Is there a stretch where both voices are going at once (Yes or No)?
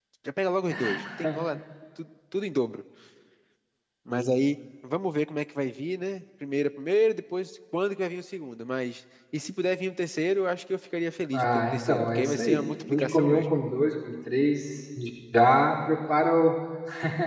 Yes